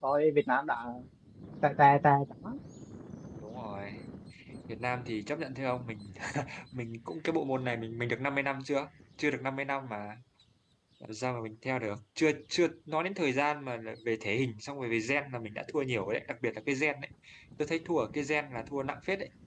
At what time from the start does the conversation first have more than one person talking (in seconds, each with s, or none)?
none